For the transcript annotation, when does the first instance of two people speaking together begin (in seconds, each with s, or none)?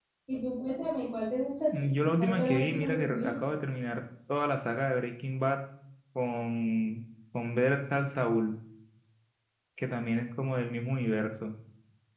1.7 s